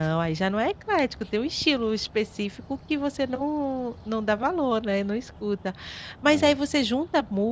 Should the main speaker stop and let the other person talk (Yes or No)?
No